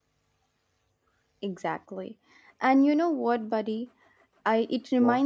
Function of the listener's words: listening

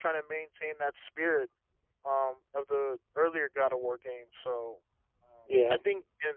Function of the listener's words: listening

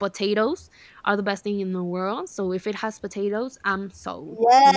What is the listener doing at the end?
taking over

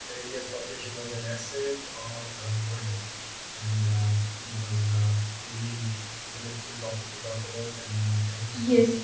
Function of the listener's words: taking over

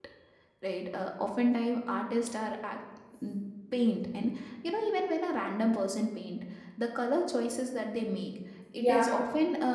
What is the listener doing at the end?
listening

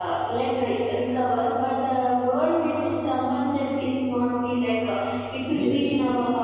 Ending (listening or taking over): listening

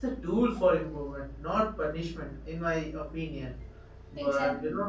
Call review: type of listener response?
listening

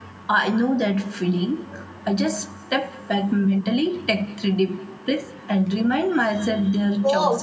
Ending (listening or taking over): taking over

